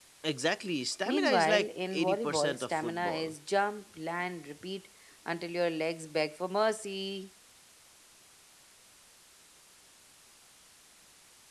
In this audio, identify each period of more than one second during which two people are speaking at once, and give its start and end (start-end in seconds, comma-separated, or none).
1.1-3.3